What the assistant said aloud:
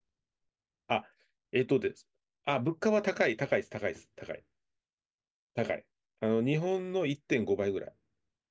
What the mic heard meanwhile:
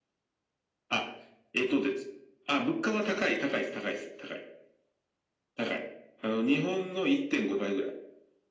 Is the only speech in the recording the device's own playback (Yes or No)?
Yes